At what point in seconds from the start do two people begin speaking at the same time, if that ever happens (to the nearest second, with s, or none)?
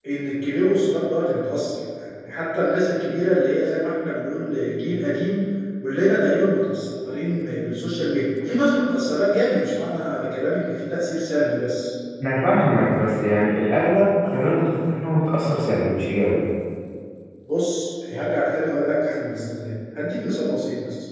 none